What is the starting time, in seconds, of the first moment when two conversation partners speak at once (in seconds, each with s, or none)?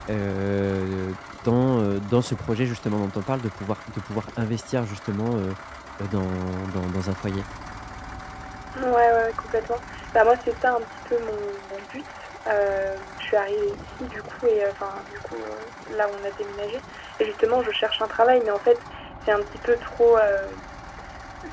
none